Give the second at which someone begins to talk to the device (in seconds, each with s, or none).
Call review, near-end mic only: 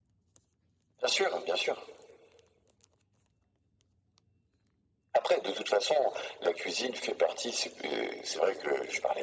none